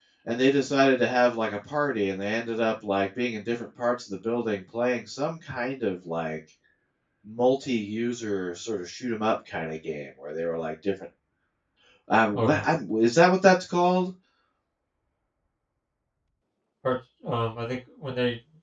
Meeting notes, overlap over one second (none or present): none